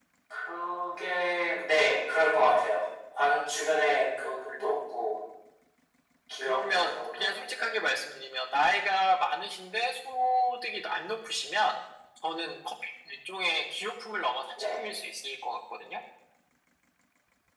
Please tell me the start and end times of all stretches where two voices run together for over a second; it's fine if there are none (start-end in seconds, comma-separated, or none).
6.4-7.7